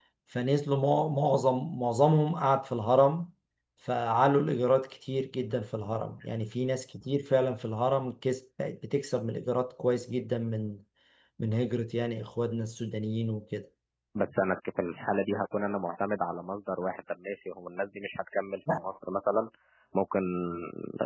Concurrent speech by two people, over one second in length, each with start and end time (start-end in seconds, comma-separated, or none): none